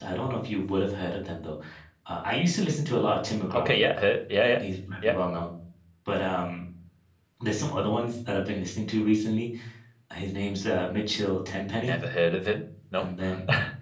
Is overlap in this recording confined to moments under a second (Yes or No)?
Yes